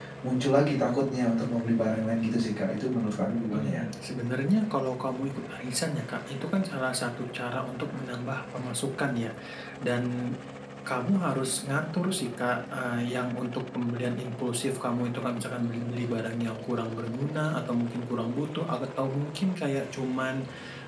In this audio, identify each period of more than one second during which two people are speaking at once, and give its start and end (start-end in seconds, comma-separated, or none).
none